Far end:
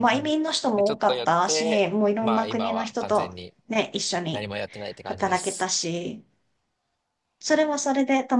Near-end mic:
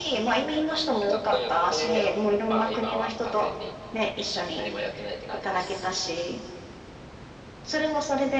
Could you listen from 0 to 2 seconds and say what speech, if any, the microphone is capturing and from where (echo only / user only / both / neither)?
echo only